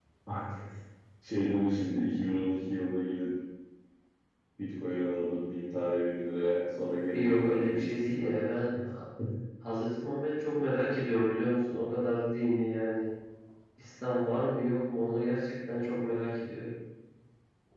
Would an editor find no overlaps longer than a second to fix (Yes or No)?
No